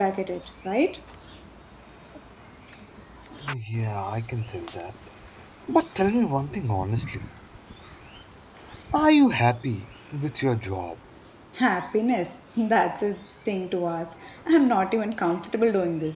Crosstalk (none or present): none